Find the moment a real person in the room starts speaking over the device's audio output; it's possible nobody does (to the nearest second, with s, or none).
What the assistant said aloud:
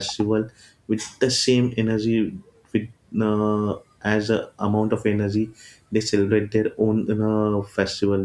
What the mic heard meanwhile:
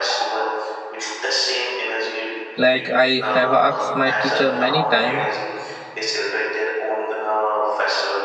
3 s